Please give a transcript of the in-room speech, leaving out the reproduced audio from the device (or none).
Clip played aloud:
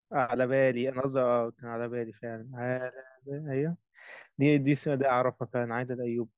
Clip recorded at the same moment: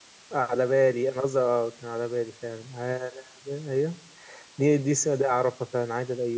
none